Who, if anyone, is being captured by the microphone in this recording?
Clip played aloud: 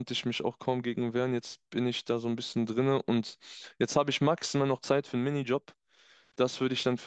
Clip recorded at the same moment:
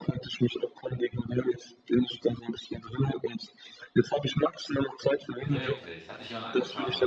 both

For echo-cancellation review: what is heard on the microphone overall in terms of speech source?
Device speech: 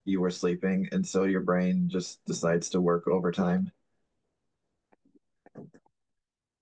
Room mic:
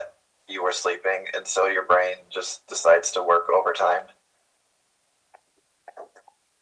echo only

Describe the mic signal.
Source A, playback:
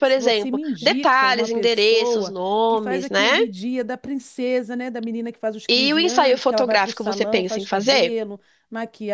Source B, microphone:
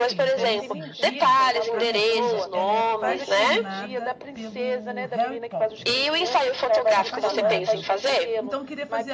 both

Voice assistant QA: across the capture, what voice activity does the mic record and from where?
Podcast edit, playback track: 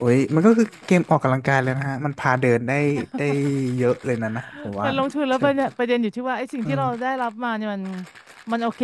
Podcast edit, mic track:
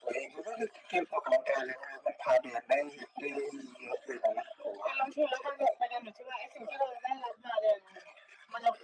echo only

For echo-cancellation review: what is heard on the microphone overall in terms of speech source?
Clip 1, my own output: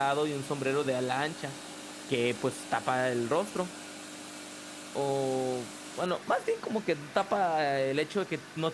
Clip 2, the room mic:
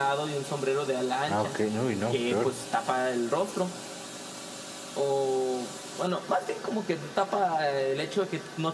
both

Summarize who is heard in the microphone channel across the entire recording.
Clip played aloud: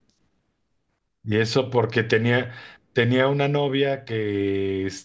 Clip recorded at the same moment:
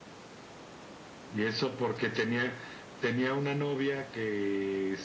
echo only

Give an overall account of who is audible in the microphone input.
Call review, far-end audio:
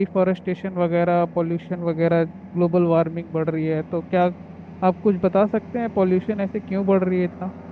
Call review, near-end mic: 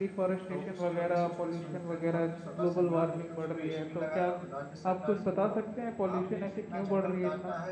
both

